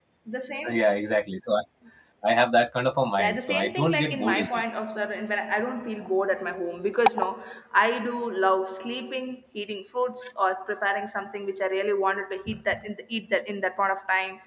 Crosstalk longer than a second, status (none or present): present